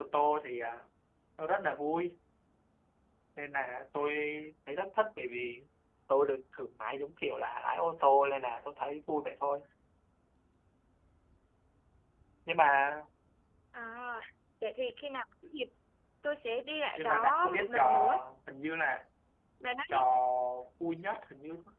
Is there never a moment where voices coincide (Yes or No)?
No